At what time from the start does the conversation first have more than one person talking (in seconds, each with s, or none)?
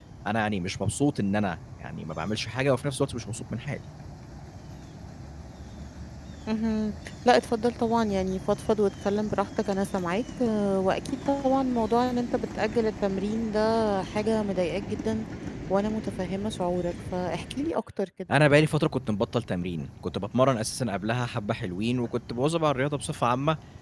none